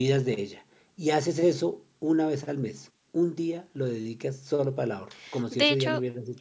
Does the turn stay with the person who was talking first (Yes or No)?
No